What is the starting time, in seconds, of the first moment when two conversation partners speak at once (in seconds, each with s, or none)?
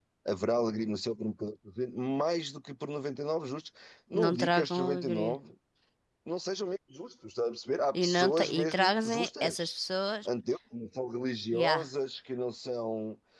4.2 s